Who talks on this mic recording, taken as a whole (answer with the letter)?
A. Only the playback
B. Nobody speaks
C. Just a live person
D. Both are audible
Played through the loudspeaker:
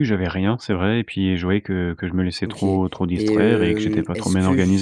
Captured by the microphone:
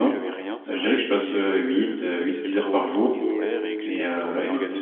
D